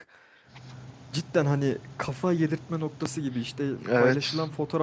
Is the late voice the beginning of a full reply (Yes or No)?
No